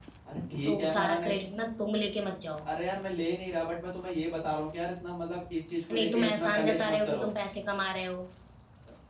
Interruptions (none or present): present